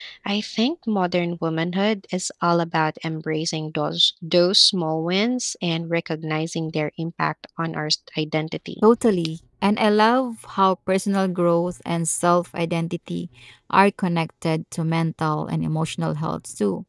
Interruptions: none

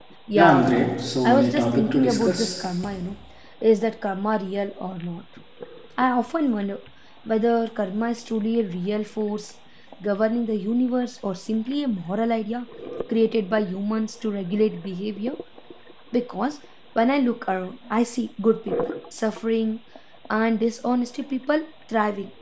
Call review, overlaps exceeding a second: present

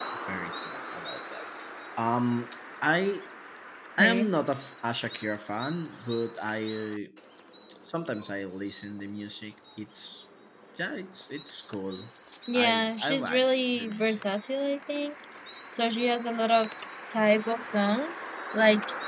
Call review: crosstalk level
present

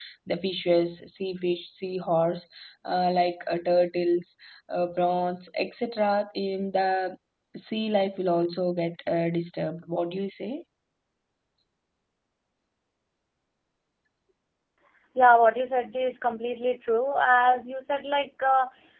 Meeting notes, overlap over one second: none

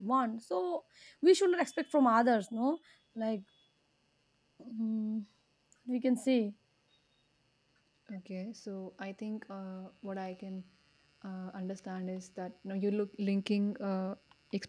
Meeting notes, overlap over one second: none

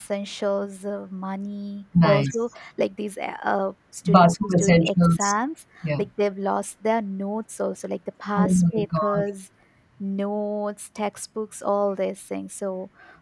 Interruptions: present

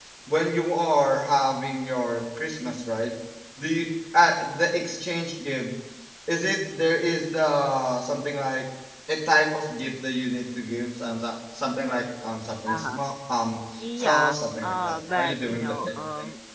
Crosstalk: present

